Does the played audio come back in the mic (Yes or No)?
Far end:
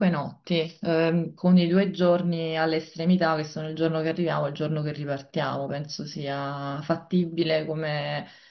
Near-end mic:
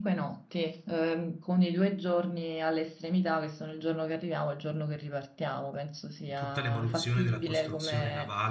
Yes